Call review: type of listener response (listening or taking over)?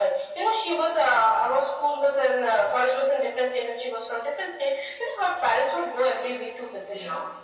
taking over